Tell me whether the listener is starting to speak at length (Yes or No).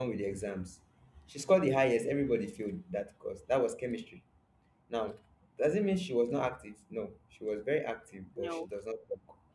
No